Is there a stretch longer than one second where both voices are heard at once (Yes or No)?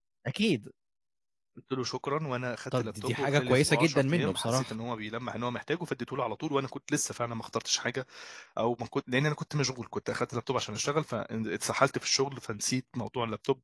Yes